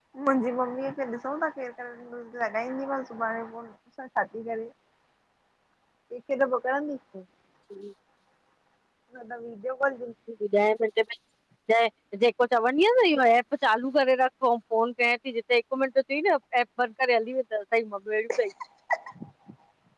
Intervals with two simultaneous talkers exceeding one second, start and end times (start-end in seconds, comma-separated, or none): none